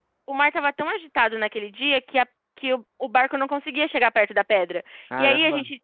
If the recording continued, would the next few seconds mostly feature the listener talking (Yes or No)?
No